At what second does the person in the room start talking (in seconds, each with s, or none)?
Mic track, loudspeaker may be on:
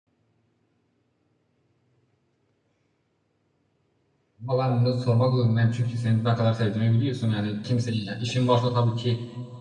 4.5 s